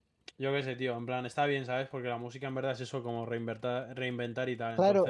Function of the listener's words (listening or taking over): taking over